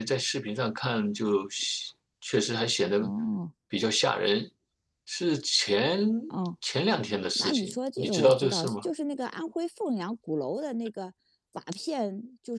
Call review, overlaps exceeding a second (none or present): present